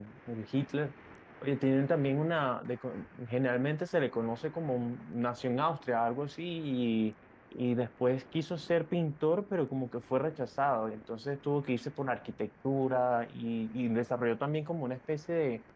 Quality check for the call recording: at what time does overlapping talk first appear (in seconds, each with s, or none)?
none